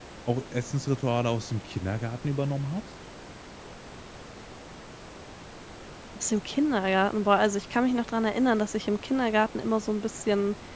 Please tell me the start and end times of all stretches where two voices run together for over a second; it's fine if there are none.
none

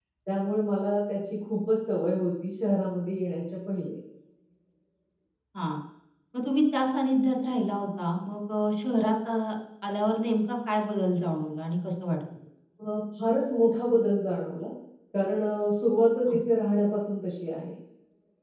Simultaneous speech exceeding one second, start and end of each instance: none

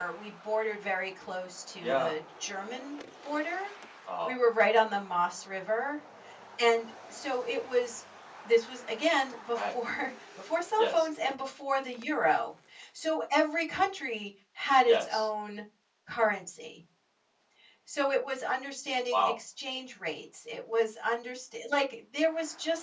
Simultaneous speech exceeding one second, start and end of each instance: none

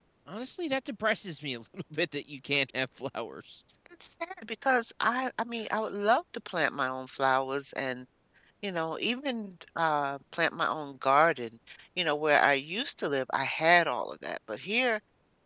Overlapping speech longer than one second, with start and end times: none

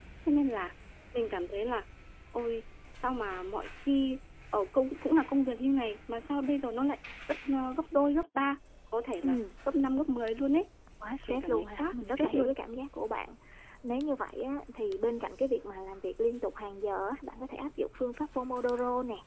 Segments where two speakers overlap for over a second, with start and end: 11.3-12.5

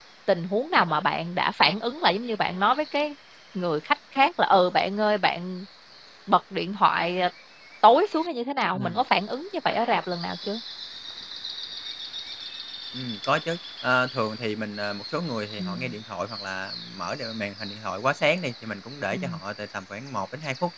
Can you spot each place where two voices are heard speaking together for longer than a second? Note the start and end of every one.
none

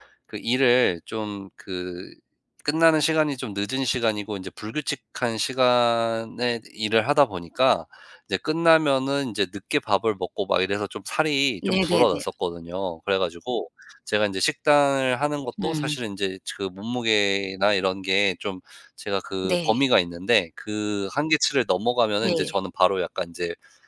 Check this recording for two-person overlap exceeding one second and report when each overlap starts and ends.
none

